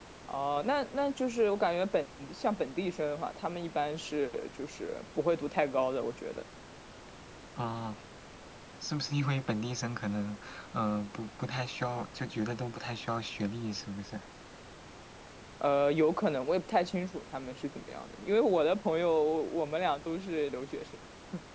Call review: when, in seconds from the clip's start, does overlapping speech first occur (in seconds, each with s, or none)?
none